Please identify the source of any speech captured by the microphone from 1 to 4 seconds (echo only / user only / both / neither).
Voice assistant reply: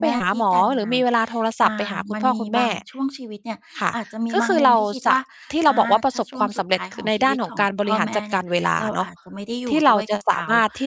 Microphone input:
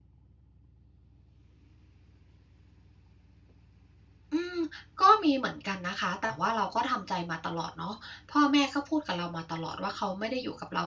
neither